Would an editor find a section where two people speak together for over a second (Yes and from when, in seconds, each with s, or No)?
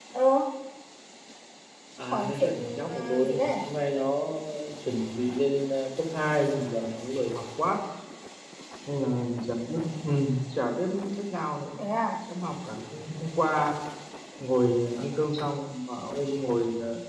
Yes, from 2.1 s